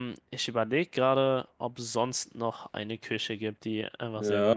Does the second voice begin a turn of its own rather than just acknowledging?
Yes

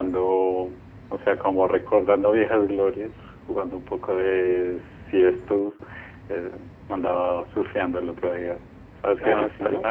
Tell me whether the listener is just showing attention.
Yes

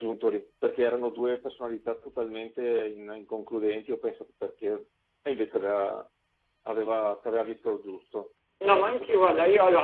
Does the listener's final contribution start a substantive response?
Yes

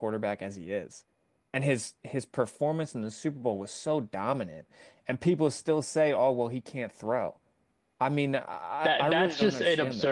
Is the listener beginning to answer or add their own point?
Yes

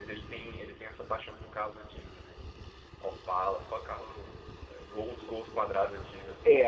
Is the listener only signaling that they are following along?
No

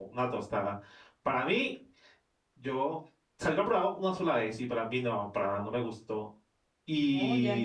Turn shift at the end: Yes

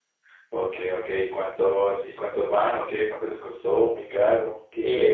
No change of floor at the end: No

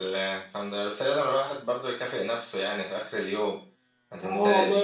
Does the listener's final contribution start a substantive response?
Yes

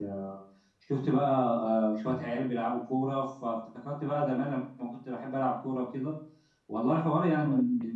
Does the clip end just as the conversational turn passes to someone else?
No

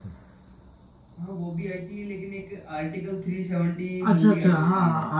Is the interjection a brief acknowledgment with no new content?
No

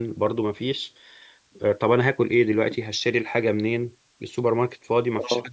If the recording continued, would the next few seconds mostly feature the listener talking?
Yes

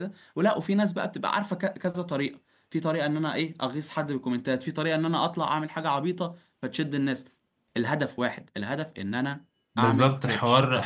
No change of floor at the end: No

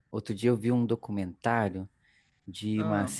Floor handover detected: No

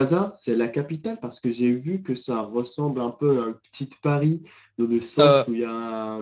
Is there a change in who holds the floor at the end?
No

